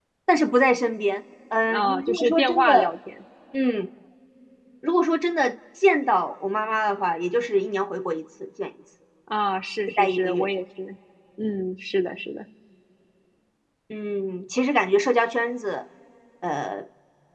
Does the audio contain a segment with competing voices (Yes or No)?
Yes